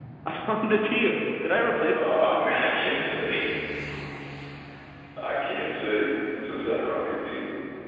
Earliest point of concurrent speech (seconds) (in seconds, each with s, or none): 1.4 s